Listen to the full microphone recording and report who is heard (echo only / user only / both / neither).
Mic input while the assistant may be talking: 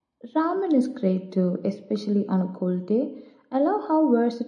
echo only